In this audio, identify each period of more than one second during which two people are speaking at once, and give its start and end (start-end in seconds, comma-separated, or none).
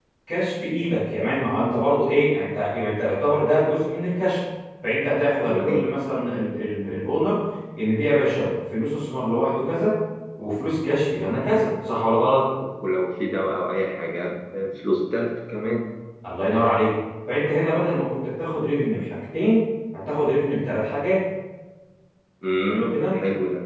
none